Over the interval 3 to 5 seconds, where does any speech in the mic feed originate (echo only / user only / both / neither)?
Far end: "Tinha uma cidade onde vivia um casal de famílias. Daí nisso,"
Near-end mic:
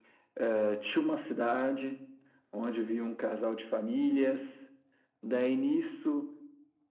echo only